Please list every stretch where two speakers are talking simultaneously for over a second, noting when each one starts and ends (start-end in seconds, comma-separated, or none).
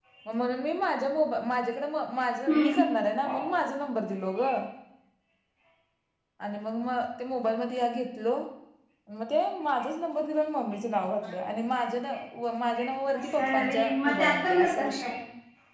13.2-15.1